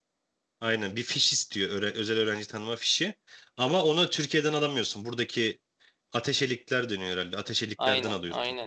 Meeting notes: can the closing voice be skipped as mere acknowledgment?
No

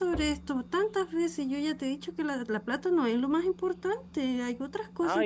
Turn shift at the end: Yes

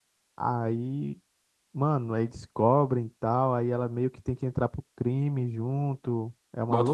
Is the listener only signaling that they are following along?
No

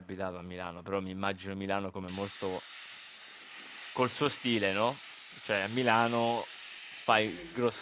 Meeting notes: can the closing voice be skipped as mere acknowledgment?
Yes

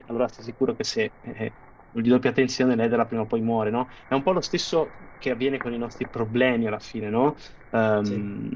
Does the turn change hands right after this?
No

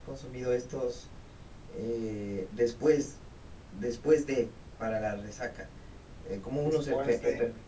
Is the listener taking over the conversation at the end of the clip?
No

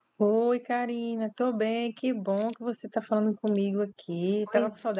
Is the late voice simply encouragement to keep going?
No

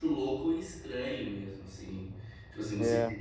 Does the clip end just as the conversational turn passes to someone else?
No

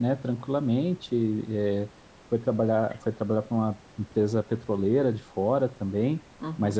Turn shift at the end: Yes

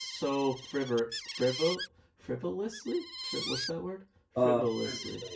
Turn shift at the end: Yes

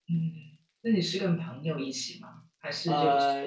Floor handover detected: Yes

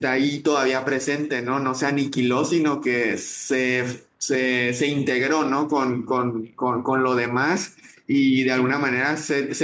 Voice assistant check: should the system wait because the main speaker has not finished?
Yes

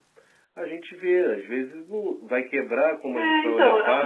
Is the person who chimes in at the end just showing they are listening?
No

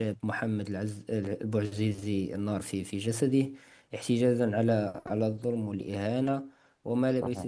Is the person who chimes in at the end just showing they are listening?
Yes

